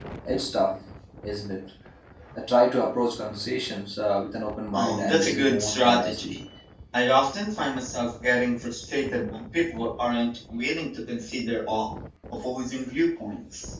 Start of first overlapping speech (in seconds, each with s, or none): 4.7 s